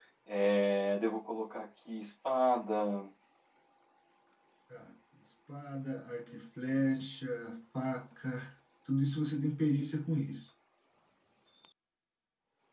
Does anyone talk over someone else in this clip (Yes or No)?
No